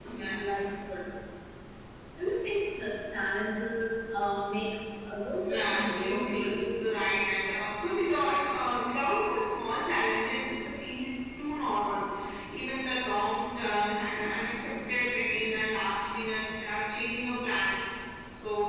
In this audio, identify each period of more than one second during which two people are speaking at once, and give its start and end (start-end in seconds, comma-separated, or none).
5.4-6.8